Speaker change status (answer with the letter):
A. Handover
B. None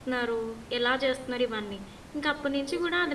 B